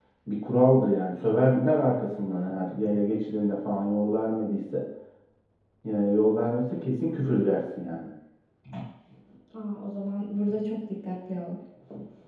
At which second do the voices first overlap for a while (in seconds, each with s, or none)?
none